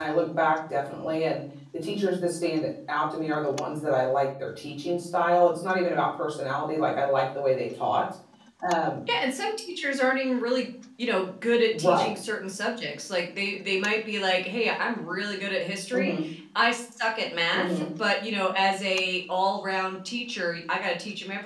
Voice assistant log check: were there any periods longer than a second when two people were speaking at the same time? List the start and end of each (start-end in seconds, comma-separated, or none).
none